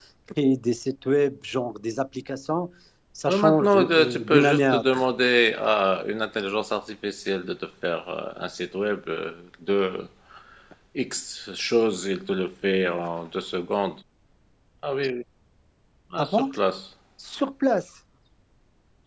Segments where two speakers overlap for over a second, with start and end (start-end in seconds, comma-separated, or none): 3.3-5.0